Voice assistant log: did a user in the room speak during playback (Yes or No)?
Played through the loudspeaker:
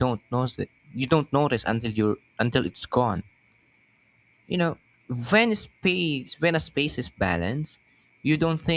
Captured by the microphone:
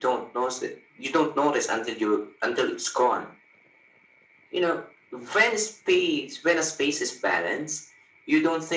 No